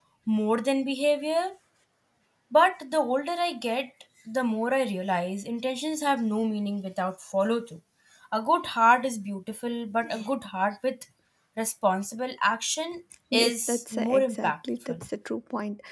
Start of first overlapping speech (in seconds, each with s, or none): 13.3 s